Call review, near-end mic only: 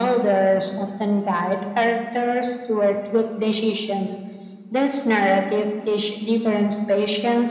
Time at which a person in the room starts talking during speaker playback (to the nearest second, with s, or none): none